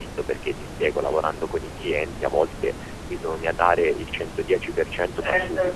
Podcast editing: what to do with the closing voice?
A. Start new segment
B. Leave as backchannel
B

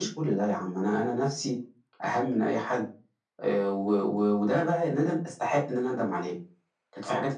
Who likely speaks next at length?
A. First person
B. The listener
A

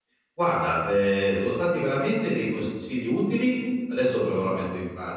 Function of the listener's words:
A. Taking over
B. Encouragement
B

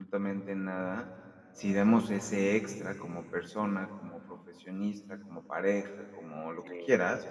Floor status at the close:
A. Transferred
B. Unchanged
B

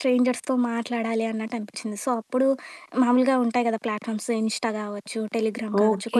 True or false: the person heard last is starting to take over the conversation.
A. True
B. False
A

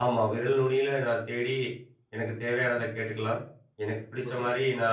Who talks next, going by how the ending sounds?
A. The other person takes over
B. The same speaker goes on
B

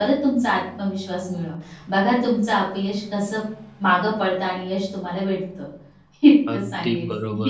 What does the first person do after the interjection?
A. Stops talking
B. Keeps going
A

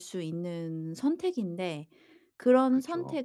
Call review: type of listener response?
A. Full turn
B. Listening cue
B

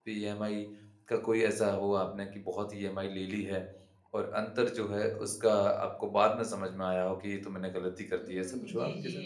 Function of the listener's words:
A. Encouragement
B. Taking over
B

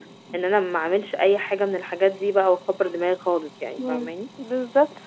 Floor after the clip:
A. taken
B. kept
A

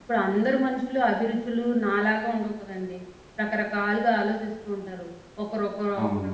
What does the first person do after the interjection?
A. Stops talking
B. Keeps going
B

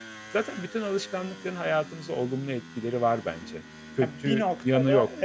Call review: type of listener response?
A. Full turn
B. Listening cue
A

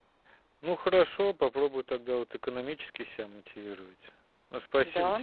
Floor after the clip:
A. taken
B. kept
B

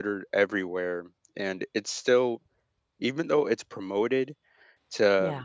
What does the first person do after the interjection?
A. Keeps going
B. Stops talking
A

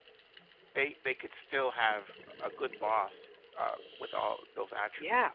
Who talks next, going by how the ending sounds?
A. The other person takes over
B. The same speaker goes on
A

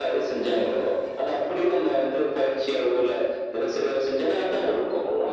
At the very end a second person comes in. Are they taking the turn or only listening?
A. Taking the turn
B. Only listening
A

